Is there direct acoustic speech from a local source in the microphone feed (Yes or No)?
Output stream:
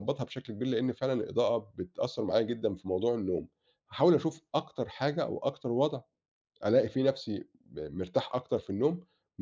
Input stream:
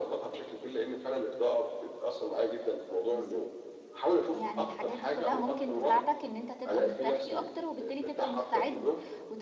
Yes